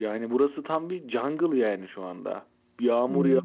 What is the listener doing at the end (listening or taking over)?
listening